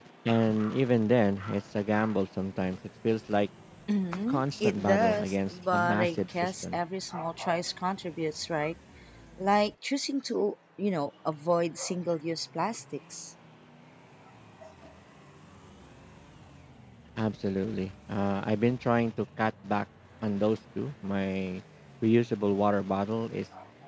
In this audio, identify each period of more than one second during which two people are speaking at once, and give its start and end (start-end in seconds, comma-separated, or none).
4.3-6.8